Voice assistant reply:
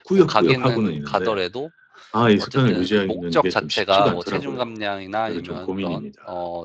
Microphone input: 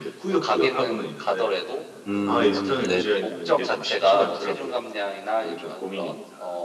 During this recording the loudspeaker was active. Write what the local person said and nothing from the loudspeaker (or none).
음 네네.